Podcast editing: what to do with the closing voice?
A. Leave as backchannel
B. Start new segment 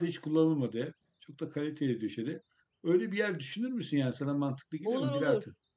B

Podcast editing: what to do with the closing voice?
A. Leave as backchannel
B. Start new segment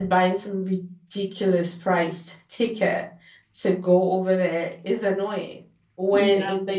A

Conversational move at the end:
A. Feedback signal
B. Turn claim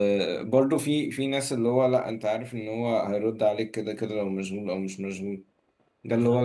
A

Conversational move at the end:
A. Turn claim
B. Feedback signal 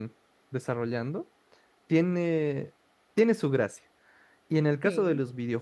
B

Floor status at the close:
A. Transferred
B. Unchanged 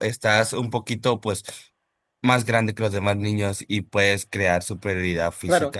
A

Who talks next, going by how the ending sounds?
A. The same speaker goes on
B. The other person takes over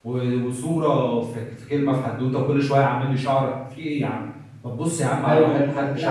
B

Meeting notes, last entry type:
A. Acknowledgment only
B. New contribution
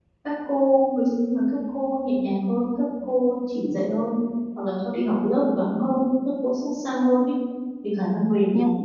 A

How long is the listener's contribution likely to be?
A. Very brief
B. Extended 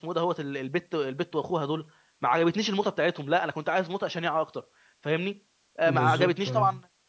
A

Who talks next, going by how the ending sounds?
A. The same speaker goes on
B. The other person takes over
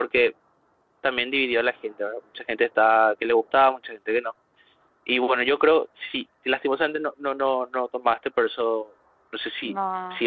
A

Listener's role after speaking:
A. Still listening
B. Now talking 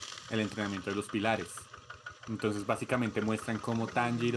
A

